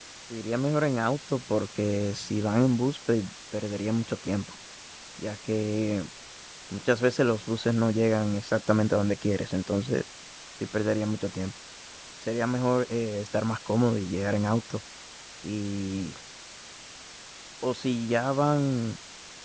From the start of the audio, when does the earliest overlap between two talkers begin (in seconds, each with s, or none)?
none